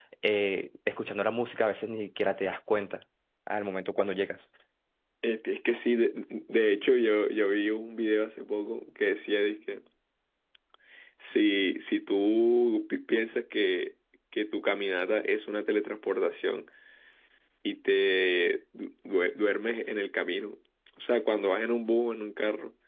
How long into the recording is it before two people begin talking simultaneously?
none

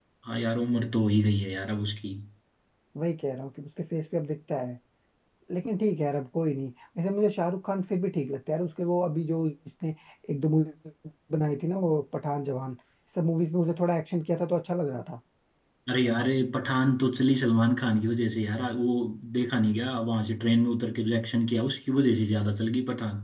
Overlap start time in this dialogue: none

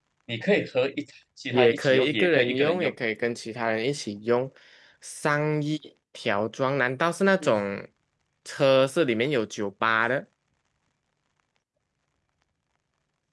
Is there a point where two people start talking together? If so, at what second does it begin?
1.5 s

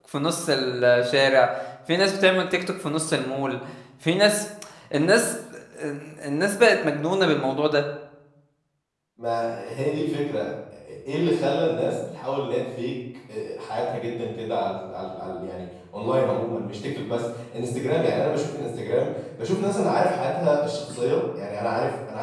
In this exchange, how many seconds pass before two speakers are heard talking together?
none

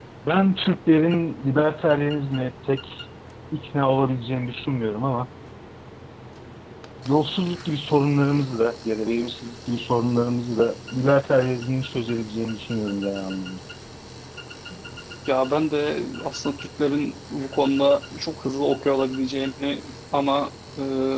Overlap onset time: none

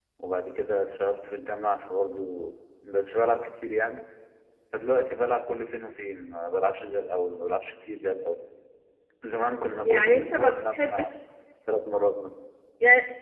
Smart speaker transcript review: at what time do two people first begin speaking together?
9.8 s

